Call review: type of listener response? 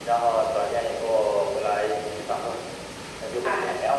listening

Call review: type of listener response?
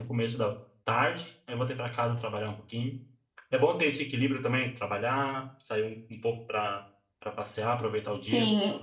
taking over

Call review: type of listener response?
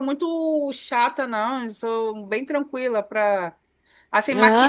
listening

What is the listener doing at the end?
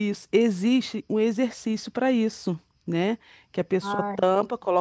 listening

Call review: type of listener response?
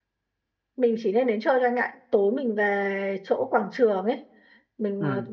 listening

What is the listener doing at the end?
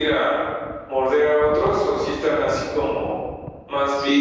taking over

